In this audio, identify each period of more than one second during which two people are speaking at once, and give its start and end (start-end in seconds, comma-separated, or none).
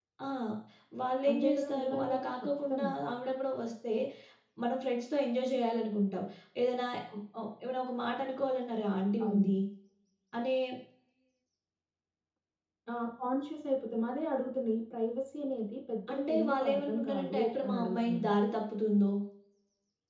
1.3-2.9, 16.1-18.3